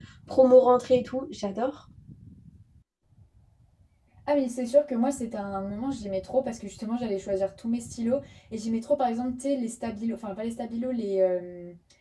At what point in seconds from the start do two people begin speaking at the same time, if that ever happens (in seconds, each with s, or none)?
none